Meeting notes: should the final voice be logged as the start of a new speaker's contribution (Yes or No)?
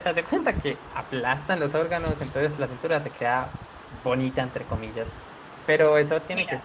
No